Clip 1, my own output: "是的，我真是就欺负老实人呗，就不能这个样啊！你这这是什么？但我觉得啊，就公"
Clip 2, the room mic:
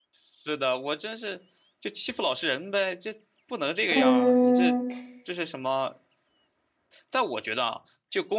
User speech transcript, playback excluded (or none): 嗯，